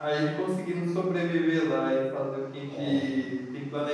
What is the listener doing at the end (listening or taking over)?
listening